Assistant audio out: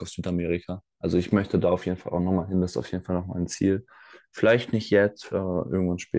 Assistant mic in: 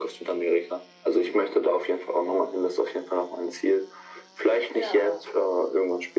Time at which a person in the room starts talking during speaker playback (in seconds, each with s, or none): 4.7 s